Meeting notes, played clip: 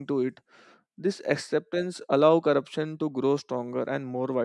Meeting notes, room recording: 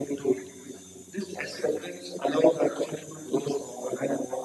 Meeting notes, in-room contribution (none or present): none